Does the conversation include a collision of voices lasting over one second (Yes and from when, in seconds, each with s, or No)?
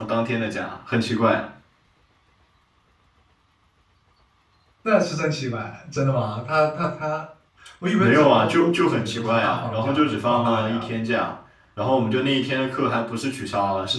Yes, from 8.0 s